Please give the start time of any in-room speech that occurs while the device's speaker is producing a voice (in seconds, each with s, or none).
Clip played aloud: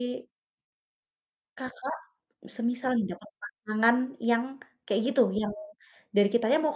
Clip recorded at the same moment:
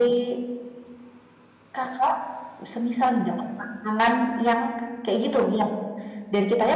none